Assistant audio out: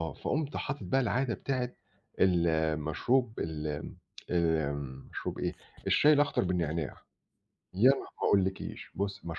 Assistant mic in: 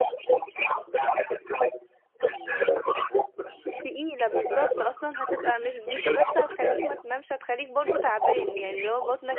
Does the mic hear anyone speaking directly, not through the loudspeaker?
Yes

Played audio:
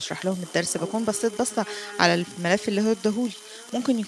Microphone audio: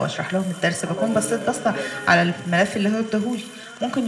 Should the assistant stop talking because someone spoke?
Yes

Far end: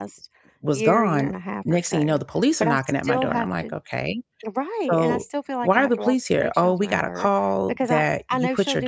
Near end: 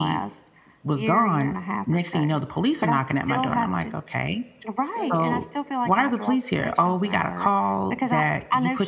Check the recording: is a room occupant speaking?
Yes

